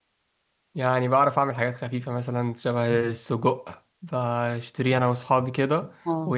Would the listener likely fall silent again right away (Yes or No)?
Yes